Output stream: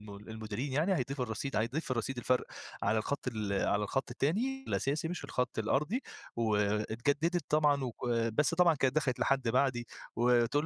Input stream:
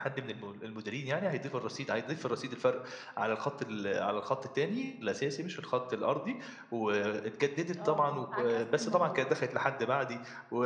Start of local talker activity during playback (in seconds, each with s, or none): 7.5 s